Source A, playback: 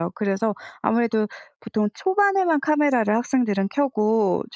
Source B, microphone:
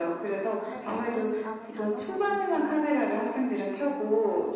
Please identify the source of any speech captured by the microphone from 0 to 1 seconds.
both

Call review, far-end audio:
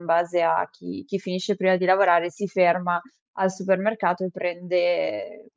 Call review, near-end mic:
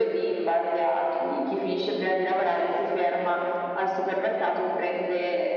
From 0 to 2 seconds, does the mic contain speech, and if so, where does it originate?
echo only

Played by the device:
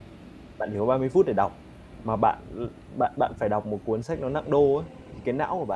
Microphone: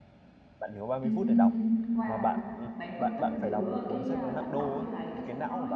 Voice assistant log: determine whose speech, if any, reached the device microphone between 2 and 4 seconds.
both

